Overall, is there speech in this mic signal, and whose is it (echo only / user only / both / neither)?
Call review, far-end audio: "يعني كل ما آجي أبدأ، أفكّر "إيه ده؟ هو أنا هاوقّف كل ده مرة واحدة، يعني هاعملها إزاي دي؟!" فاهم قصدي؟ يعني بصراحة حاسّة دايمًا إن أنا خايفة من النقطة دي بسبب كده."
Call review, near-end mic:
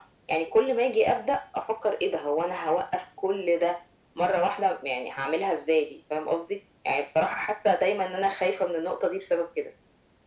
echo only